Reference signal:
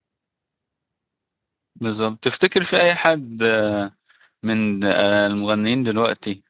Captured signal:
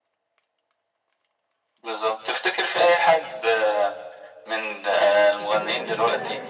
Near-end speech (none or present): present